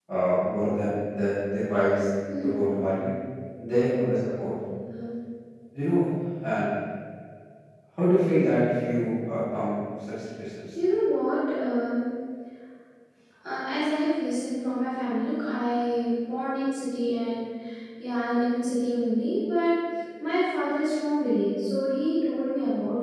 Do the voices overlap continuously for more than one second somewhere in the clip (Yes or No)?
No